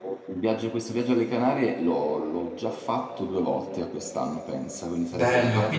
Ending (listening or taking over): taking over